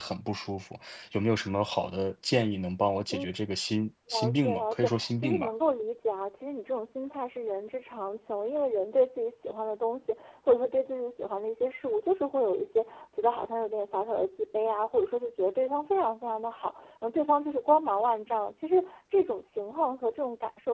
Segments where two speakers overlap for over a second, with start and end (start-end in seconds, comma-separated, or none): 4.1-5.5